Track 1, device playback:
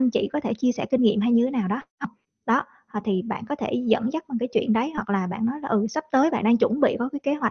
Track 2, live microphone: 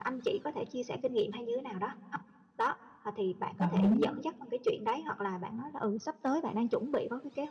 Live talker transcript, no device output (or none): Đồng ý.